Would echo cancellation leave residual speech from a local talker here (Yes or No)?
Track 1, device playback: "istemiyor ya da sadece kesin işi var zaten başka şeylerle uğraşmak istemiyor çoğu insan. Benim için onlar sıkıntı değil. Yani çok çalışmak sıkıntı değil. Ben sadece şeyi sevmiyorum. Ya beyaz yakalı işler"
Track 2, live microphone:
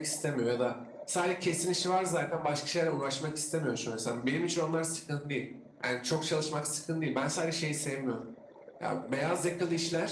No